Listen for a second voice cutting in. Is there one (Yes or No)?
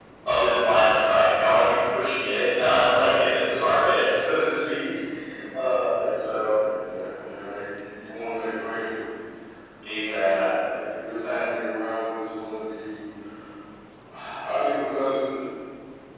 Yes